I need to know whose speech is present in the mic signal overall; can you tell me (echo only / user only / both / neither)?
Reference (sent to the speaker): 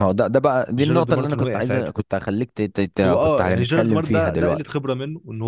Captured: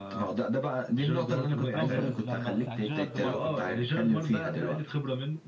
both